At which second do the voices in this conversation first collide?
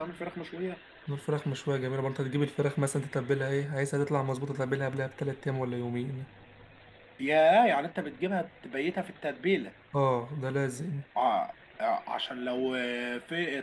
none

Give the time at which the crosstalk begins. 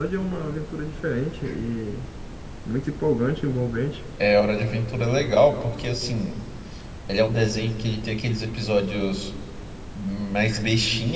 none

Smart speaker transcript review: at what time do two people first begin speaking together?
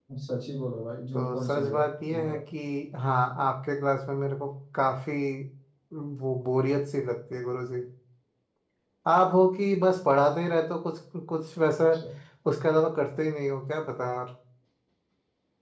1 s

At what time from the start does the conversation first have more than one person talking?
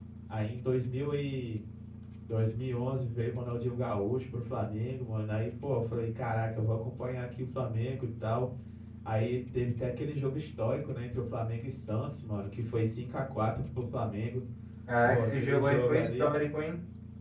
15 s

